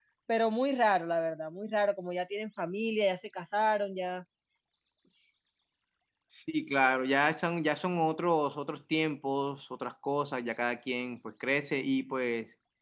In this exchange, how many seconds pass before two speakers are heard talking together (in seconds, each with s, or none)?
none